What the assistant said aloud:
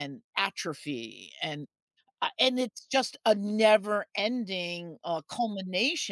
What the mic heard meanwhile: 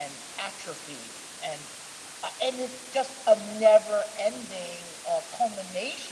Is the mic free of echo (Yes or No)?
No